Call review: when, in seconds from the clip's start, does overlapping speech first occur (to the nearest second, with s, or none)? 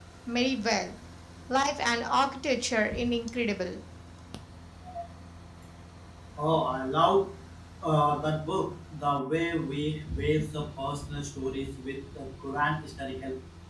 none